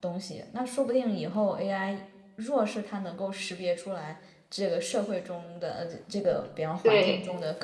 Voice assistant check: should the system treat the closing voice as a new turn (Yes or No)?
No